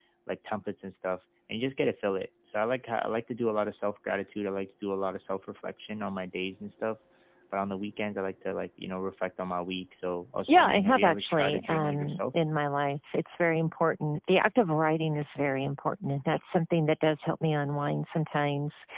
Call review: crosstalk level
present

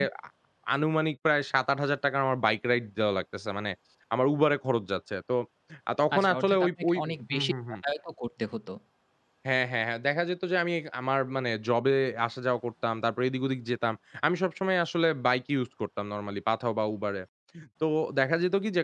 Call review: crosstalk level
present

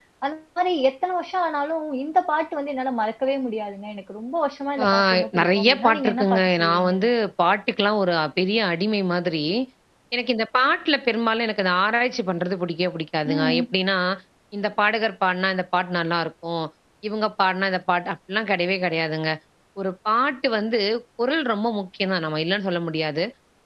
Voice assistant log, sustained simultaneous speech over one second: present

